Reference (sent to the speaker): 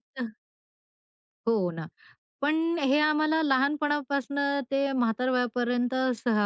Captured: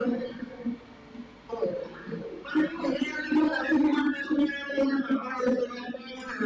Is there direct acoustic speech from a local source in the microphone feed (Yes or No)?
No